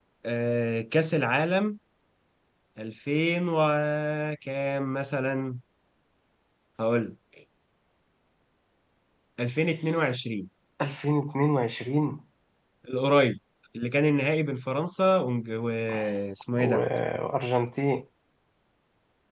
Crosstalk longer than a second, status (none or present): none